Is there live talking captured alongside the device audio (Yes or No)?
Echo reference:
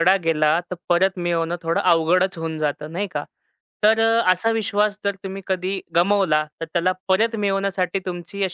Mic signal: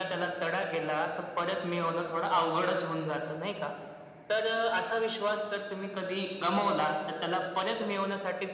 No